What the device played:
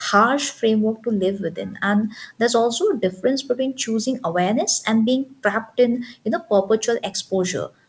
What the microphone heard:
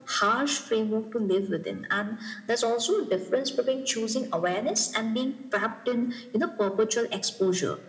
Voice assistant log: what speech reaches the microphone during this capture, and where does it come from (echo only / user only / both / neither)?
echo only